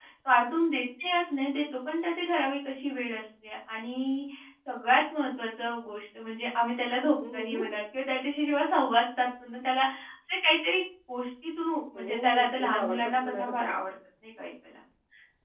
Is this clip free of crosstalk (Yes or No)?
No